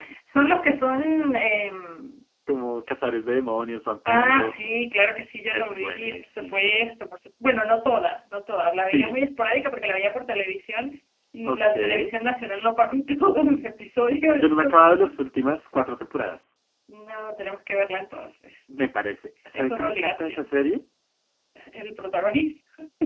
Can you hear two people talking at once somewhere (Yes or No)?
Yes